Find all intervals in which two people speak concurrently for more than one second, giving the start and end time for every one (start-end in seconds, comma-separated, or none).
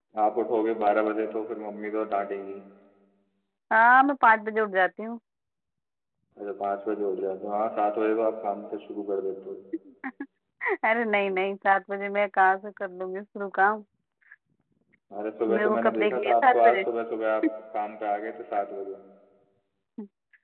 15.5-16.8